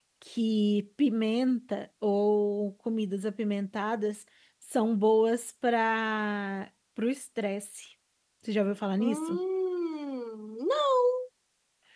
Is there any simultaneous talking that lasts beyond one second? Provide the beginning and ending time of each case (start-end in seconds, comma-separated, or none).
none